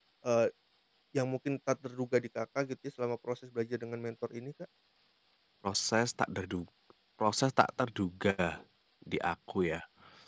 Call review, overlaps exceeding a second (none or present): none